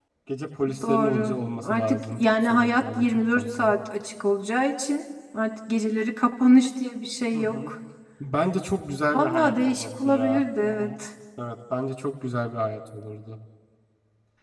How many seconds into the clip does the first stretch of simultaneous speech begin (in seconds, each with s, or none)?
0.8 s